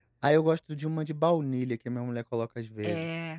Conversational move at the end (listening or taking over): taking over